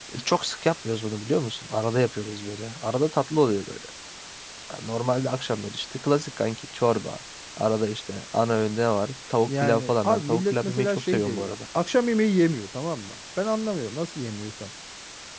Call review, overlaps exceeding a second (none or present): present